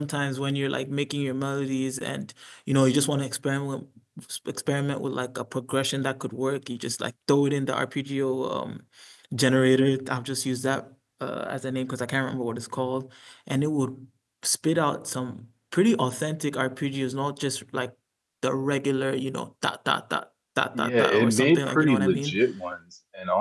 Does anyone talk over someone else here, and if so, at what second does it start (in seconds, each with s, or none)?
20.8 s